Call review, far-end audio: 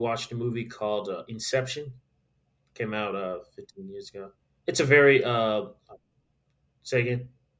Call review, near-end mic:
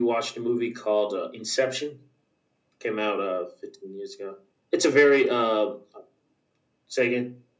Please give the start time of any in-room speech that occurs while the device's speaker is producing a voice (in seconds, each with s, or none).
none